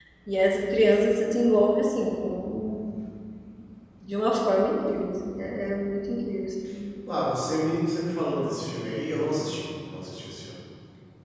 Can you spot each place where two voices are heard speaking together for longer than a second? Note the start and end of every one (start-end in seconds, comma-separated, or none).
none